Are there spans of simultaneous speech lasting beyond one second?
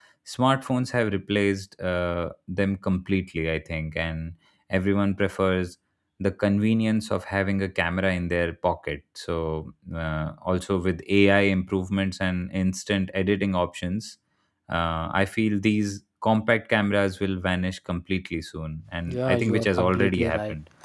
Yes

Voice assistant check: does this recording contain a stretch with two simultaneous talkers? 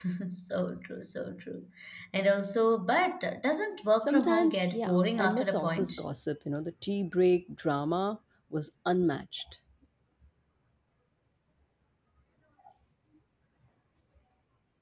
Yes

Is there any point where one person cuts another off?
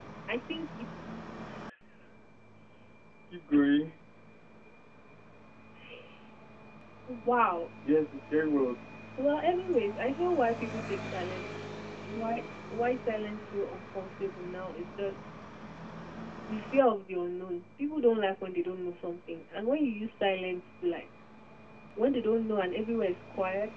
No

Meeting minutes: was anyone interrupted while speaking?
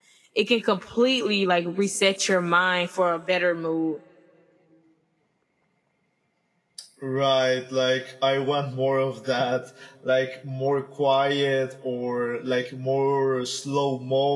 No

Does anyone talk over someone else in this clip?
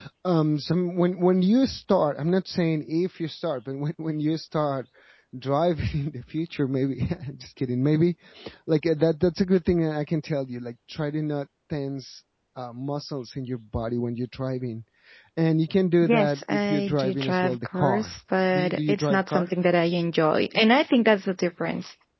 Yes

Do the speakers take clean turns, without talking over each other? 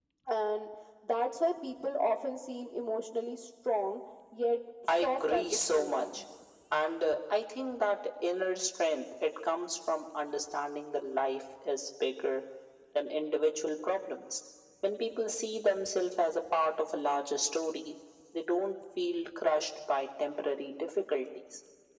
No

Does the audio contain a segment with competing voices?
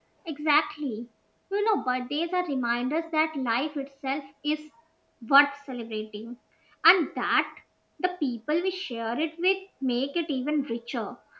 No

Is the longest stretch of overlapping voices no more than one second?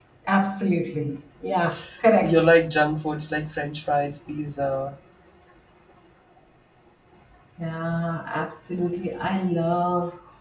Yes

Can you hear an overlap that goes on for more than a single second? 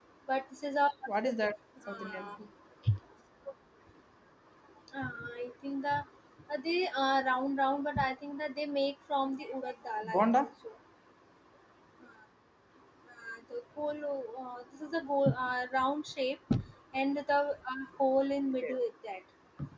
No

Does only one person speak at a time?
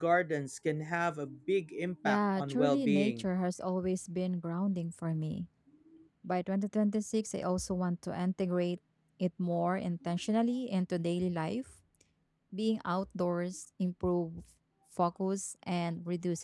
No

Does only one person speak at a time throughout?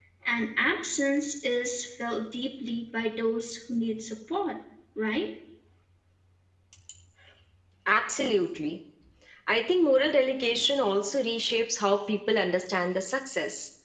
Yes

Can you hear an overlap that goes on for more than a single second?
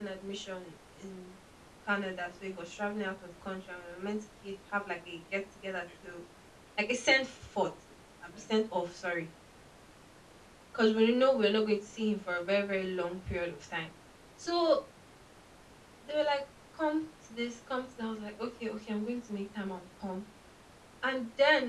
No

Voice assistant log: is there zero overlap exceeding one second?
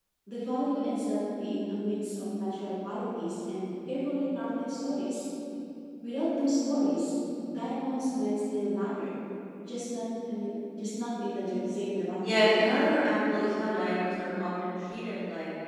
Yes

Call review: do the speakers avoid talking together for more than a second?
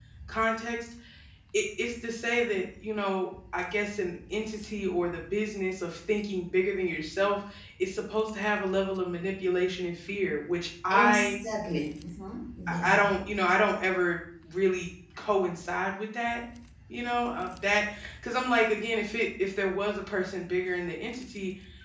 Yes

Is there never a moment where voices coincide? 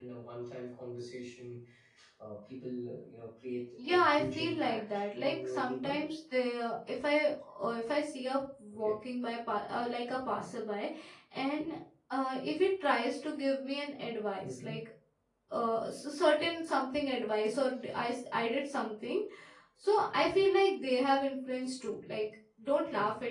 No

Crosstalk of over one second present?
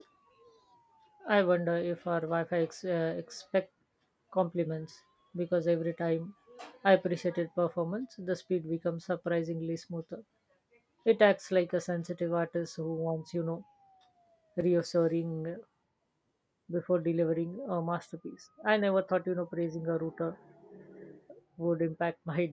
No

